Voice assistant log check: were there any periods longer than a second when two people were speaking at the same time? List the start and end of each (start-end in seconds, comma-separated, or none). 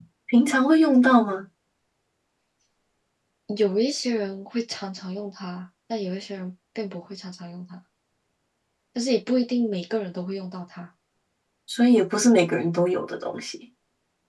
none